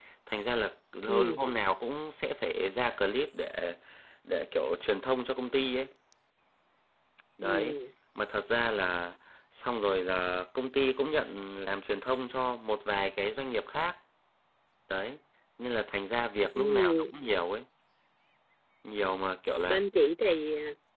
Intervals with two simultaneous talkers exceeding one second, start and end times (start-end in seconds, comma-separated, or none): none